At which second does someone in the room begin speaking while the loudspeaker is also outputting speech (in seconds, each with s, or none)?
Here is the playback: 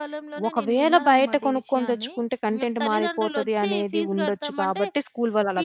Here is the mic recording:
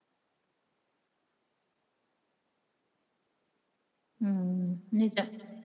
4.2 s